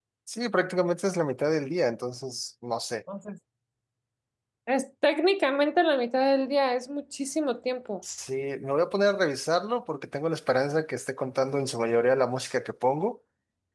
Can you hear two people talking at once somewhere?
No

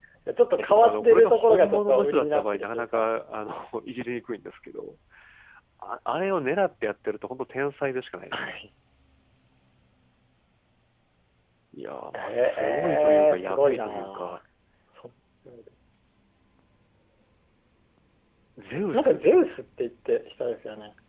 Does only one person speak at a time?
No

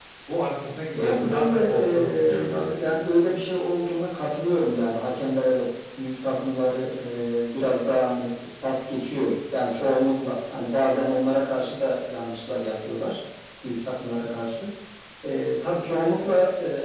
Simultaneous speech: Yes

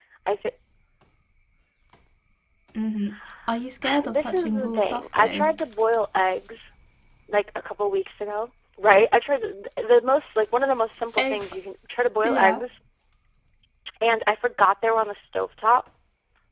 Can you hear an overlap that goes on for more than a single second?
Yes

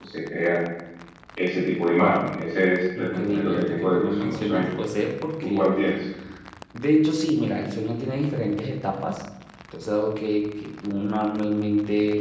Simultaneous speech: Yes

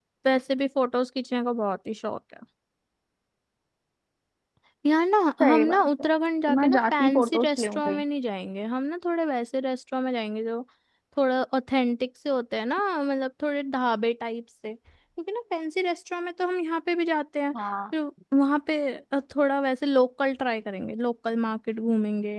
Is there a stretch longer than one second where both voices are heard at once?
Yes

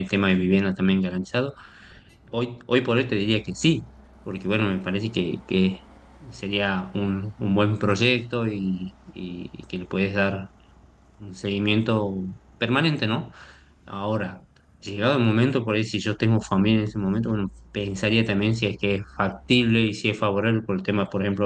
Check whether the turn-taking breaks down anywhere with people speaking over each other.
No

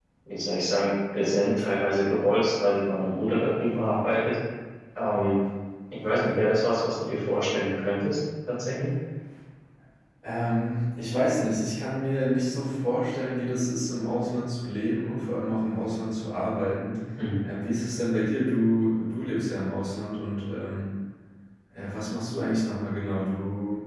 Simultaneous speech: No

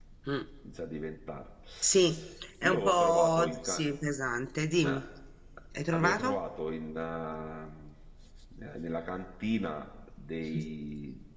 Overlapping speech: Yes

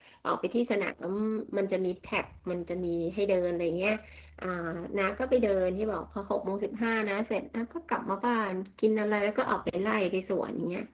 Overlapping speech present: No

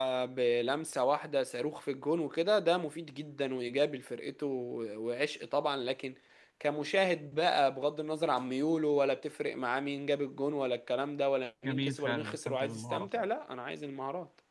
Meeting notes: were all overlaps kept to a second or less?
No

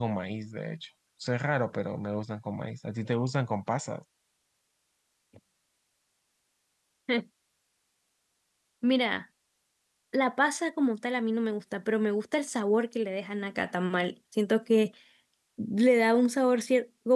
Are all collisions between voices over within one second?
Yes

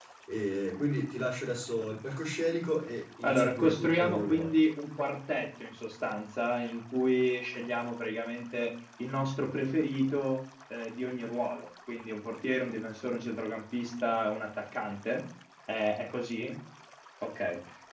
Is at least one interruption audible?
Yes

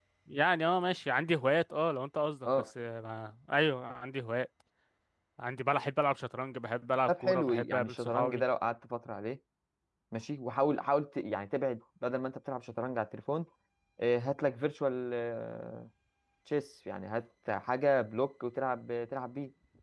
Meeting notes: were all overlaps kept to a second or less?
No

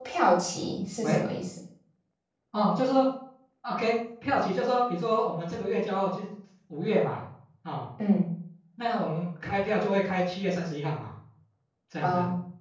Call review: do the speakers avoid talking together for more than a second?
Yes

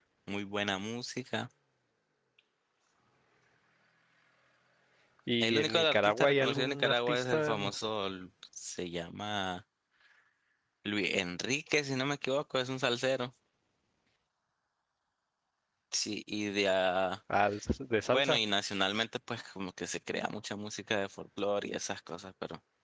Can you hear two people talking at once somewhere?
Yes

